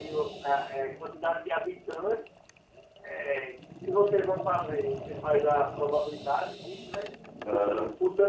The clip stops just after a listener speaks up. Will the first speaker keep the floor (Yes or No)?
Yes